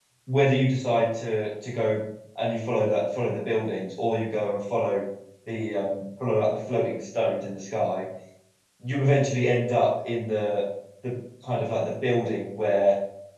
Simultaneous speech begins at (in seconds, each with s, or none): none